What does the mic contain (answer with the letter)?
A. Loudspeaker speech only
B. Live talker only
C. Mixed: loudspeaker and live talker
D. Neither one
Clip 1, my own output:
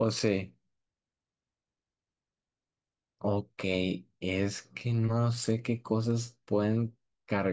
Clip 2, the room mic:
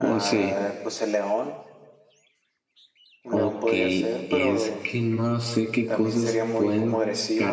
C